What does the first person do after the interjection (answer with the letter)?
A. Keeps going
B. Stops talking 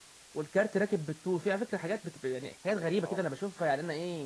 A